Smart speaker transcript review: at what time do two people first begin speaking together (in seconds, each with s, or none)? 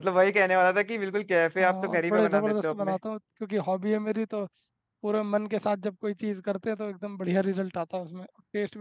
1.6 s